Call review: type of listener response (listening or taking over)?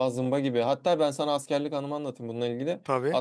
listening